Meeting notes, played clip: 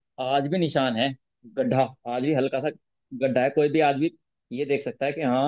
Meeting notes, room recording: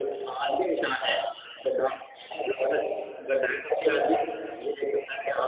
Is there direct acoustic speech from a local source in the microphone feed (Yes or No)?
No